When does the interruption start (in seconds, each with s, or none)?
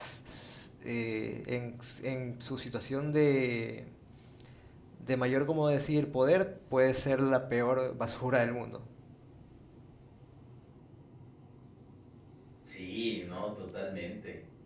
none